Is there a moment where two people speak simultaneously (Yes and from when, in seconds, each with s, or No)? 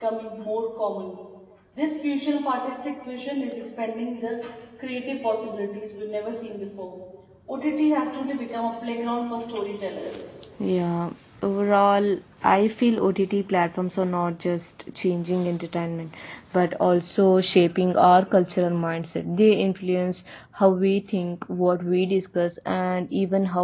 No